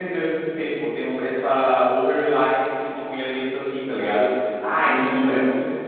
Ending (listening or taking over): listening